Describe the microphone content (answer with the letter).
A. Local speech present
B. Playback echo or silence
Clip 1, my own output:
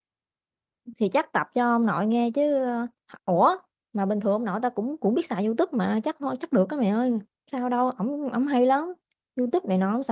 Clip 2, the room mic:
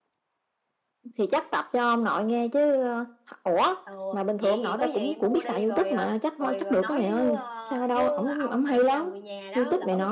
A